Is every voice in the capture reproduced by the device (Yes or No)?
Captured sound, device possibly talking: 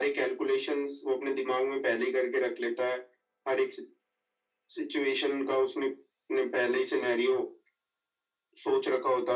Yes